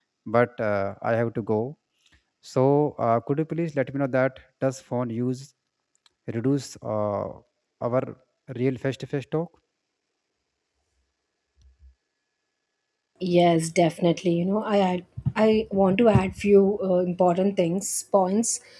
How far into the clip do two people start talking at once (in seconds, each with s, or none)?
none